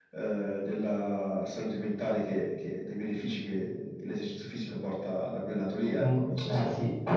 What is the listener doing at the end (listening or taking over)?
taking over